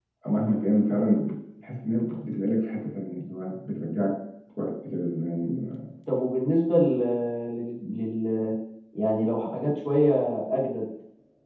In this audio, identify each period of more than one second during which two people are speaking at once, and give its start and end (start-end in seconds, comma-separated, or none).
none